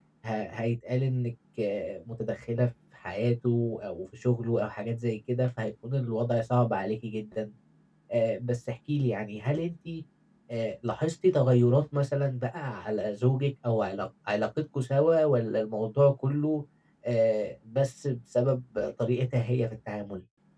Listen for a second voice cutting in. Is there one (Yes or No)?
No